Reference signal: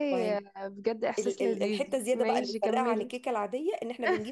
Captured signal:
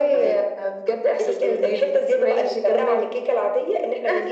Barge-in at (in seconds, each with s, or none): none